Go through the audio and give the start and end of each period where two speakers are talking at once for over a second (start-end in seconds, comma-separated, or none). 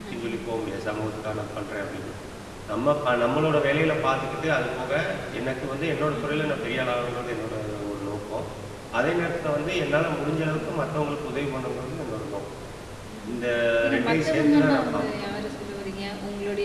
13.9-15.2